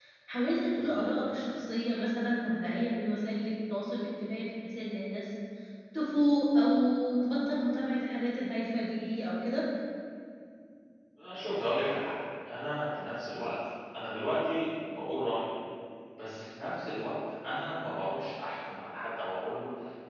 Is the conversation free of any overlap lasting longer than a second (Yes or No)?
Yes